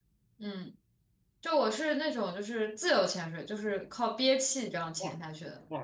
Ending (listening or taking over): taking over